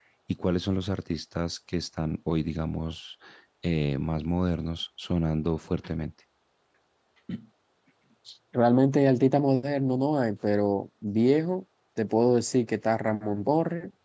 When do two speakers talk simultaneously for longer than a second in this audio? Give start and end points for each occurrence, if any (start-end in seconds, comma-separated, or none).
none